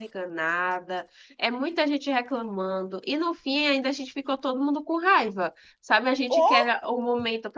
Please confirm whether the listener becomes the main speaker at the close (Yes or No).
No